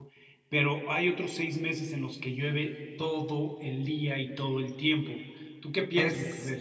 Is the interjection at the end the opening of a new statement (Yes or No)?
Yes